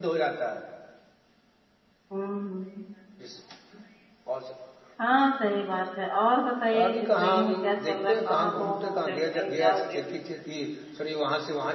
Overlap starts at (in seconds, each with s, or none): 6.7 s